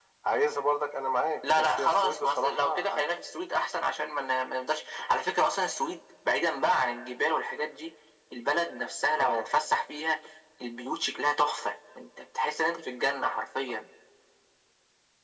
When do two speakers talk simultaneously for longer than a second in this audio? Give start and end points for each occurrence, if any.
1.6-3.0

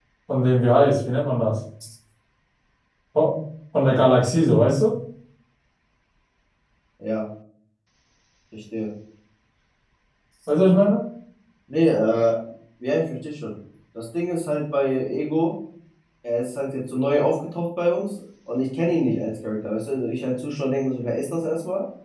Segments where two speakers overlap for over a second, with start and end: none

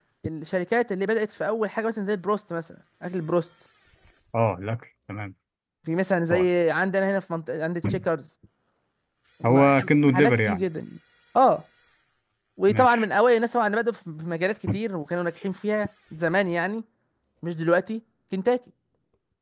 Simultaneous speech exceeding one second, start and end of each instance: 9.4-10.6

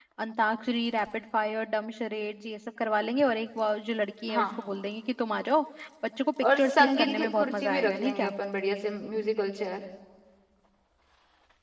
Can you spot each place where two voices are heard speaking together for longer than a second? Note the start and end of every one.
6.6-8.3

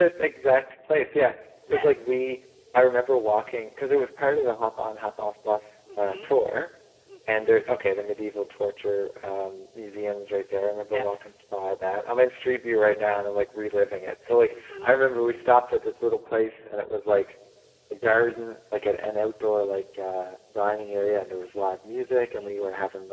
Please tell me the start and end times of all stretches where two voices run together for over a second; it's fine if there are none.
none

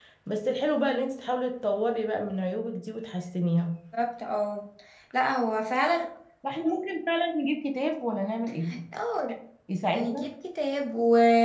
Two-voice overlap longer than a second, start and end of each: none

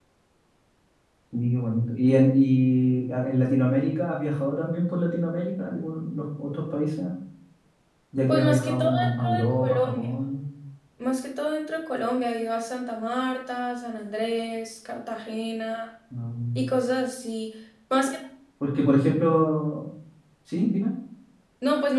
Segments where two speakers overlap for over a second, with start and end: 8.3-10.1

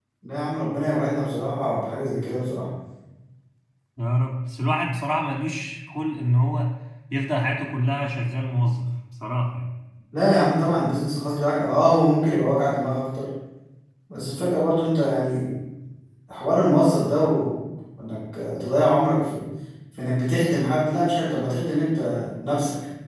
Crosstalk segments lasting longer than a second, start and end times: none

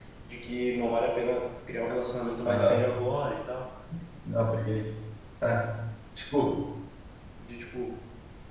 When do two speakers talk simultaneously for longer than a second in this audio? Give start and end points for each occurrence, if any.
none

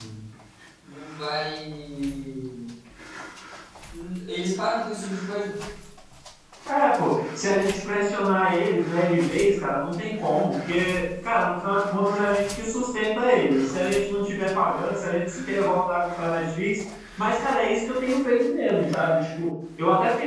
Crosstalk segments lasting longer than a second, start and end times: none

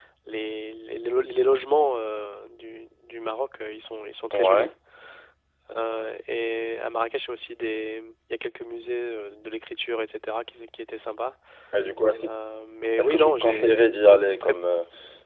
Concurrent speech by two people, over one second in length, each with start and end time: 13.0-14.5

